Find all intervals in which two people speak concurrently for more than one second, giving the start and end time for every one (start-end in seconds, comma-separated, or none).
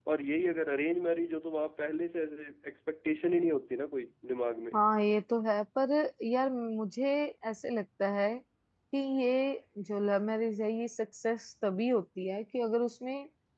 none